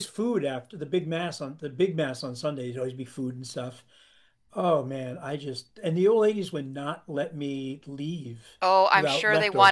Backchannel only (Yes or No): No